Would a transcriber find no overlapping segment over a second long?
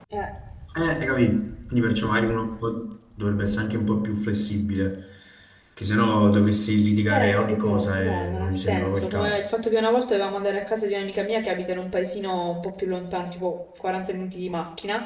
No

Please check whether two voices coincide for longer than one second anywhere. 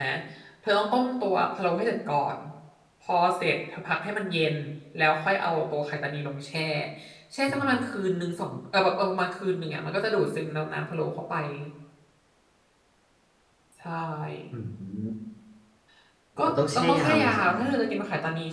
Yes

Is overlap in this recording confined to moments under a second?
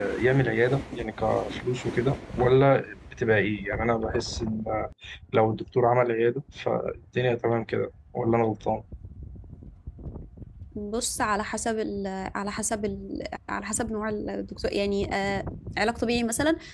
Yes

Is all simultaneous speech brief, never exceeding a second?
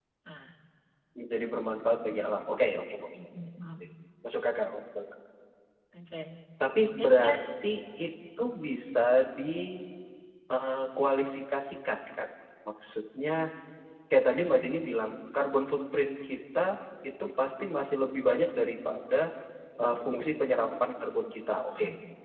Yes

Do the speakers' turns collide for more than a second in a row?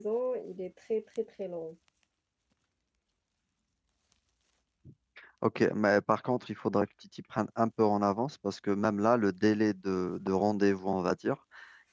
No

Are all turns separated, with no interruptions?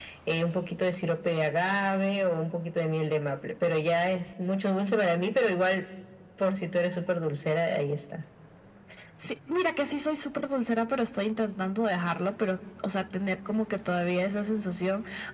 Yes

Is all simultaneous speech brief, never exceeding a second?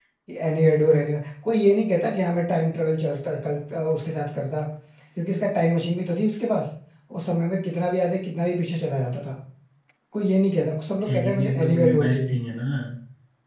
No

